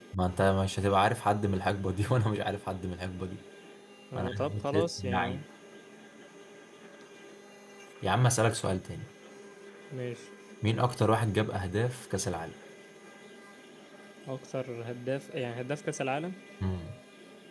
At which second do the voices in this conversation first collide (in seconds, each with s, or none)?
4.2 s